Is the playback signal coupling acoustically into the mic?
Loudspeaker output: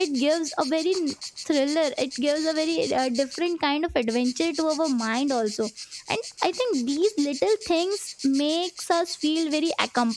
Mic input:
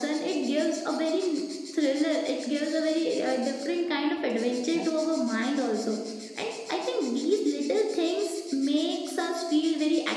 Yes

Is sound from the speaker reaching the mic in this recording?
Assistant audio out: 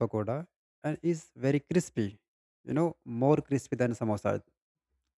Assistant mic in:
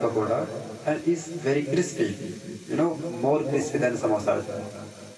Yes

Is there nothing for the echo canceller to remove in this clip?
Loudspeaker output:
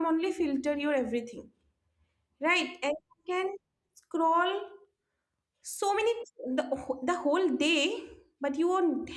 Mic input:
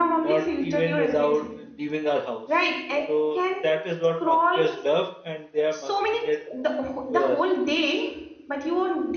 No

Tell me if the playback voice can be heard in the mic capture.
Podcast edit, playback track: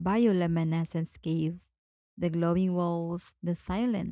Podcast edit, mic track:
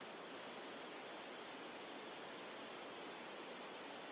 No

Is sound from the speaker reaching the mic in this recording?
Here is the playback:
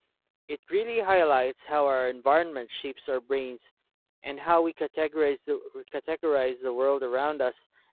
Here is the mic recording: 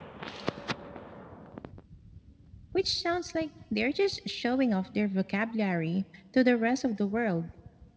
No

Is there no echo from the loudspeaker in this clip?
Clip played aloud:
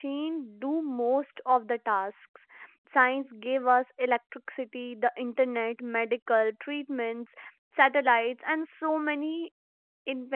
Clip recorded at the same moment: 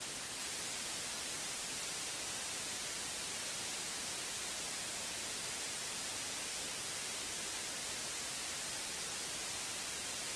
Yes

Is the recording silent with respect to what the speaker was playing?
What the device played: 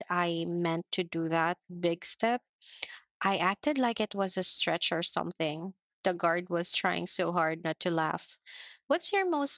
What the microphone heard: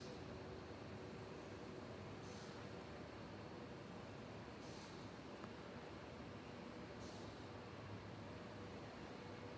Yes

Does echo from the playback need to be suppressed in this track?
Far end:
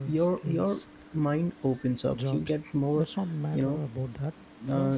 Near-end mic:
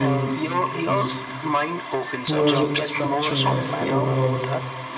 Yes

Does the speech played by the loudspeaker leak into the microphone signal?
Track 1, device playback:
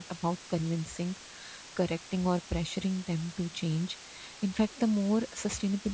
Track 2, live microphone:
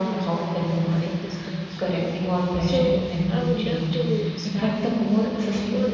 Yes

